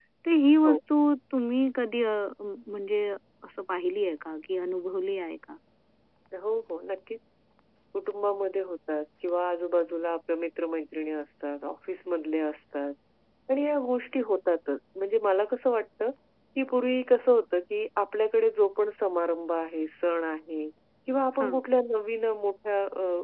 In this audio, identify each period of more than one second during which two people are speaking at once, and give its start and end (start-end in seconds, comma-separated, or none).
none